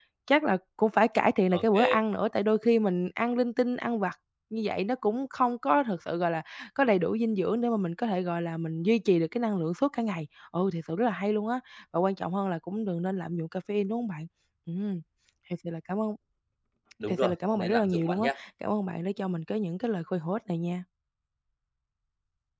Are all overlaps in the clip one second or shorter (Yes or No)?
No